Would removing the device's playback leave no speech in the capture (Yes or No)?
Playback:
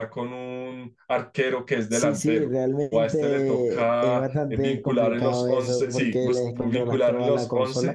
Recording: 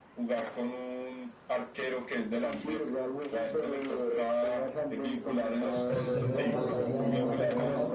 No